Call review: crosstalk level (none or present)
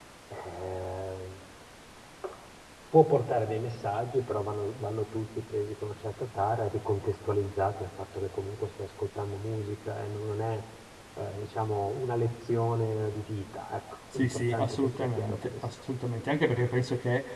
present